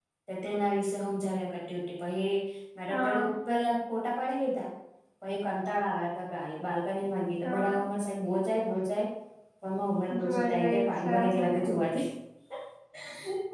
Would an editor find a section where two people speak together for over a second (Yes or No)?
Yes